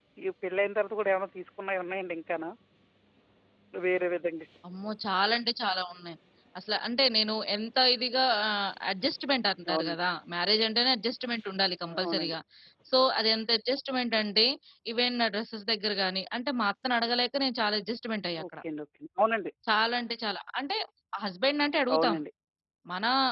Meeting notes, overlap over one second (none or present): none